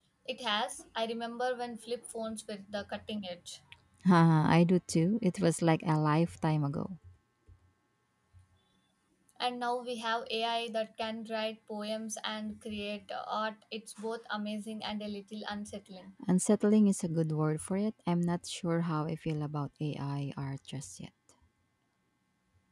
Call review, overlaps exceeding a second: none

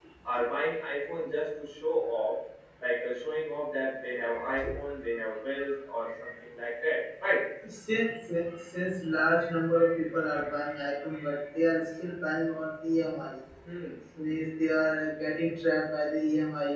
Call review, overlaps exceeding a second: none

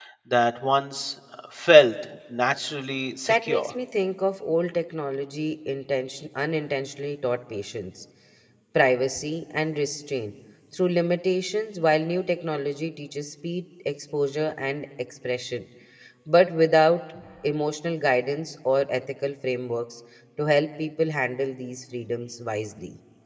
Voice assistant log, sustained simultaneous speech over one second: none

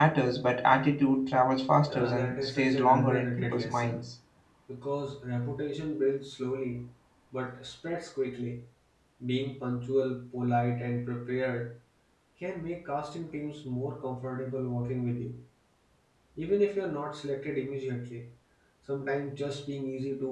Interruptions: present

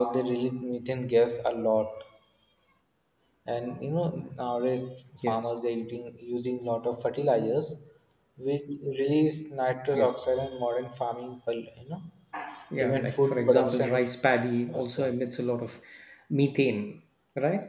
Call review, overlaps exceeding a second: present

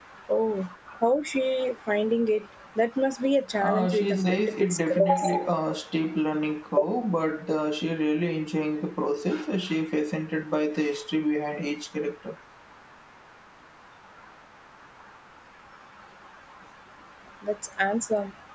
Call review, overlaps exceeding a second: present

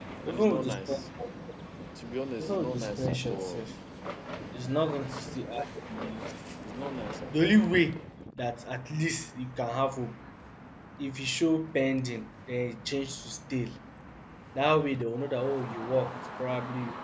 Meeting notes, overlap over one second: present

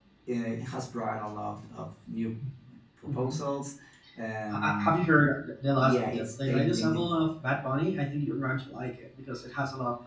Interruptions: present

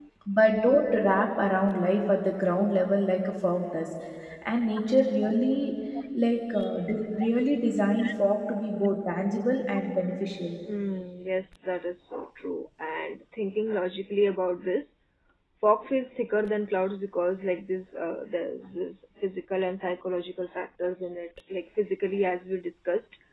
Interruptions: none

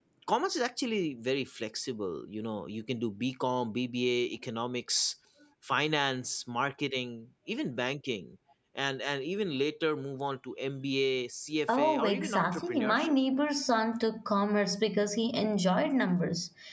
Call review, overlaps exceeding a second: present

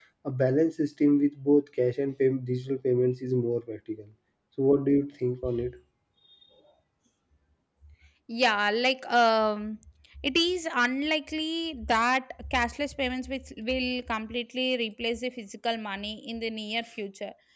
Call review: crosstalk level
none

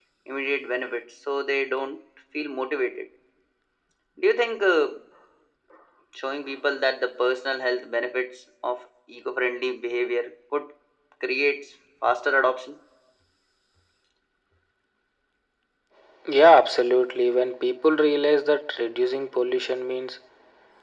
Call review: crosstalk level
none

